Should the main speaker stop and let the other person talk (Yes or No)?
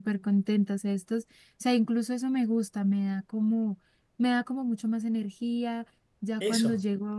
No